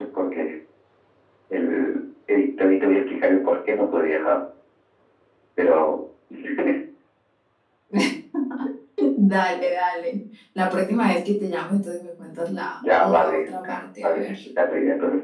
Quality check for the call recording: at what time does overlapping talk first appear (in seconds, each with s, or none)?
12.8 s